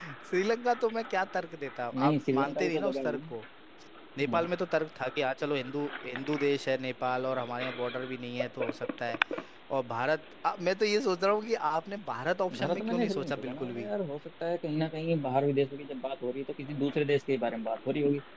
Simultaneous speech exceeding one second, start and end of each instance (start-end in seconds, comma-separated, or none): 2.0-3.3, 12.6-13.9